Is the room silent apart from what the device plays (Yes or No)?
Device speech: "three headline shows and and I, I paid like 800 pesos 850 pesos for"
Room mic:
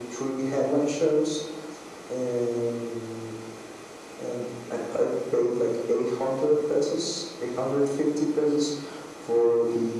Yes